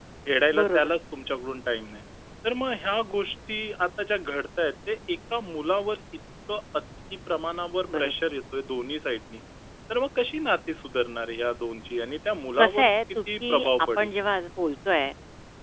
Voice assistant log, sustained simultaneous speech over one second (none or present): present